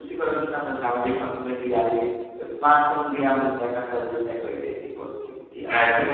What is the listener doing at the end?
taking over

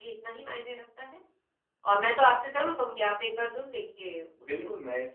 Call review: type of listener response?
taking over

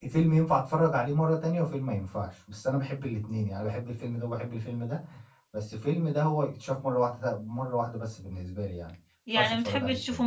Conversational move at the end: taking over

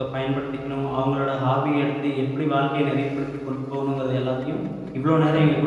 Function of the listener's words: listening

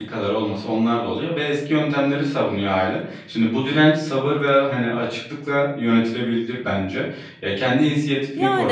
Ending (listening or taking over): listening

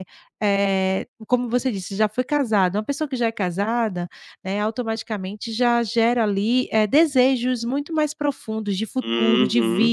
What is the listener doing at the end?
taking over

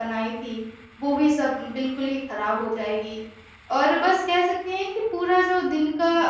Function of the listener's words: listening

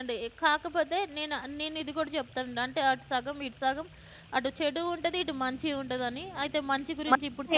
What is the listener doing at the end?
taking over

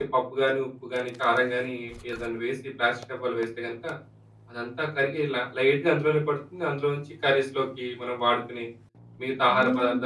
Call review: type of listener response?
taking over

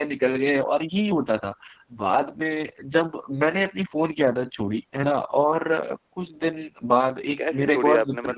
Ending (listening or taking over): taking over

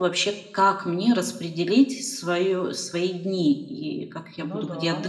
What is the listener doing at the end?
taking over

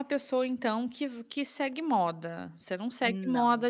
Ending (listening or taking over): listening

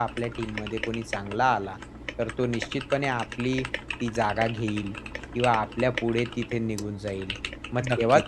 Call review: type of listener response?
listening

